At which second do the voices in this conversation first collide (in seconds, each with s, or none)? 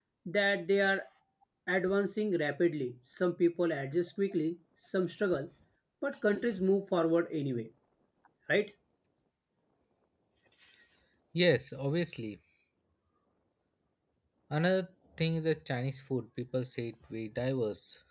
none